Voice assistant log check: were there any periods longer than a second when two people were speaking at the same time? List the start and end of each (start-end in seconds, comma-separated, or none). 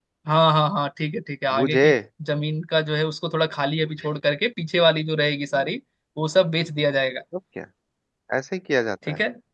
none